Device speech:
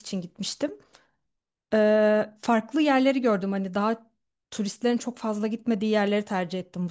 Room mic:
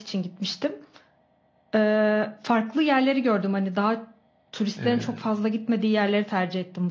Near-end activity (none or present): present